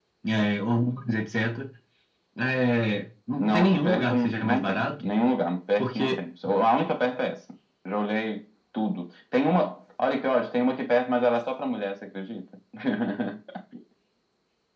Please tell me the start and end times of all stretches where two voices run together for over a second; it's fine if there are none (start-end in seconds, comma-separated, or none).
3.4-5.1